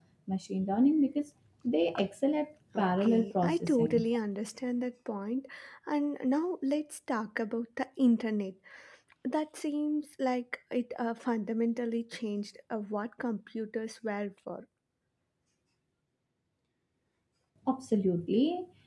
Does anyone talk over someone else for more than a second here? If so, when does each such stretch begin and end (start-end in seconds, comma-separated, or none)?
2.8-4.0